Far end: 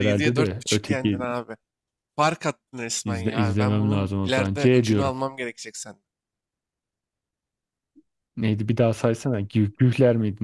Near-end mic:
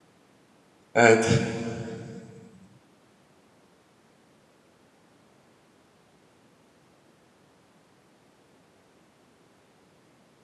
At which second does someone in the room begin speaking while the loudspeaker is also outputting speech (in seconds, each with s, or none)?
0.9 s